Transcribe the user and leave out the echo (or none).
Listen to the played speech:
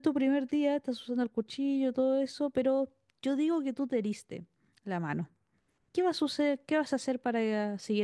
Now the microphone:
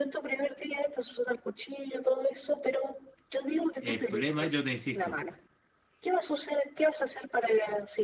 El problema, es, yo te insisto,